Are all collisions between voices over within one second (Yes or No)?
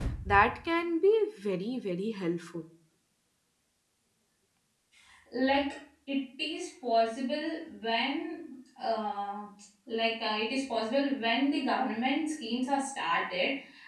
Yes